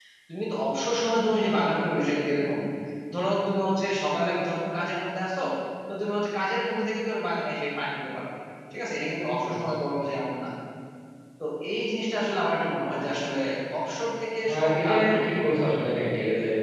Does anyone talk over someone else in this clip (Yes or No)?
Yes